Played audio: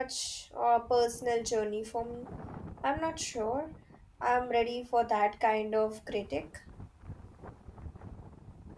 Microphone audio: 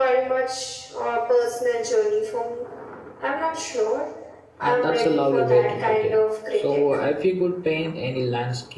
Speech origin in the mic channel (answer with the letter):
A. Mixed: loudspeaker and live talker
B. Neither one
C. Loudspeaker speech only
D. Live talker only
A